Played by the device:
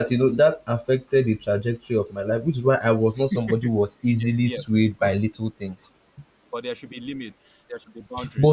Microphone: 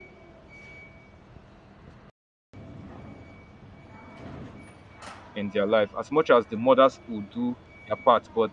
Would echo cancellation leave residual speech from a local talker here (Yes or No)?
Yes